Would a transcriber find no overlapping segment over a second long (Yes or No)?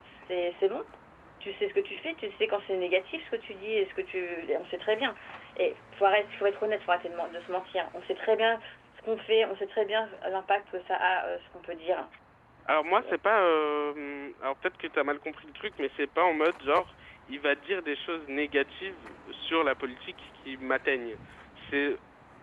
Yes